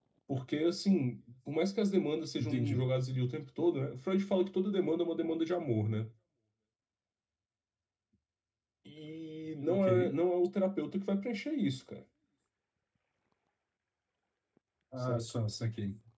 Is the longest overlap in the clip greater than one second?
No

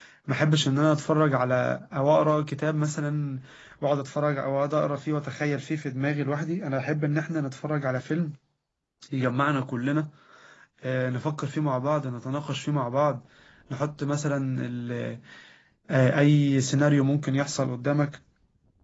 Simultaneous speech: No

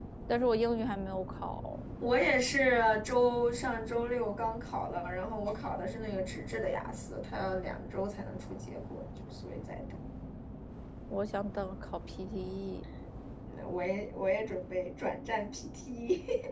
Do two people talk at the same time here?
No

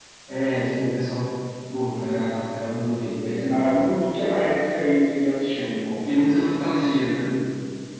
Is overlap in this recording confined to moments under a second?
Yes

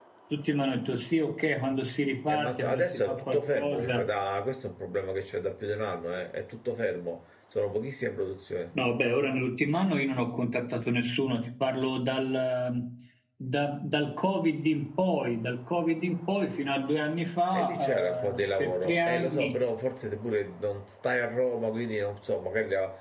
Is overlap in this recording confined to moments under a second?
No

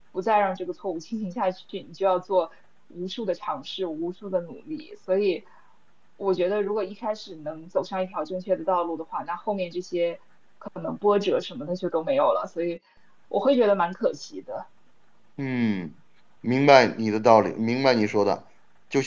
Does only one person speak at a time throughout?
Yes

